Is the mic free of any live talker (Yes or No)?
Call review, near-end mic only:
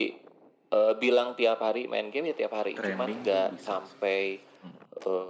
No